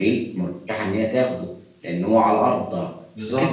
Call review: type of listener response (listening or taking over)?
listening